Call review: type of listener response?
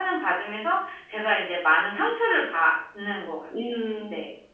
taking over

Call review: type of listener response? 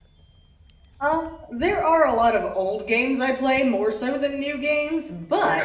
listening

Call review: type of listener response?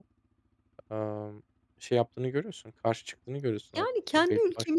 taking over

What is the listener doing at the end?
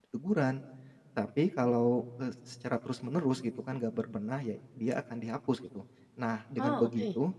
listening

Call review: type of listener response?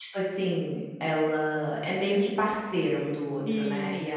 listening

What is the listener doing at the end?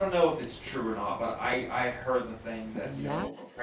listening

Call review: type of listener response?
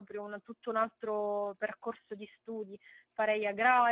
listening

